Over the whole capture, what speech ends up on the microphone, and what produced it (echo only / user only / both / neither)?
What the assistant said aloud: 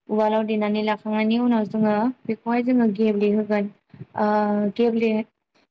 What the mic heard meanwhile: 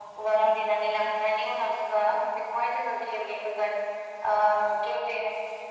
echo only